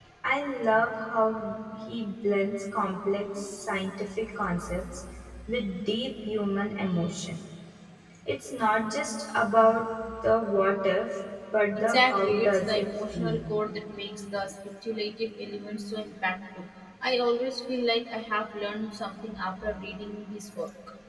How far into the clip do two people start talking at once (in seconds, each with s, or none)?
11.8 s